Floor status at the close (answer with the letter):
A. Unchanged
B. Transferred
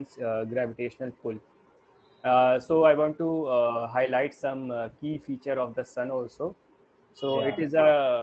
A